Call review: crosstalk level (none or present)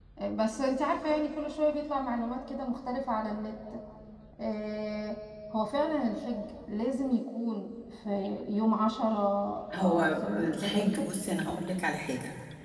present